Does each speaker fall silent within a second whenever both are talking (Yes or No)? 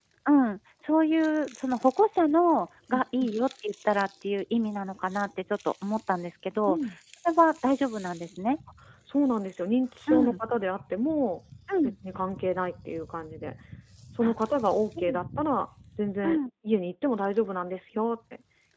Yes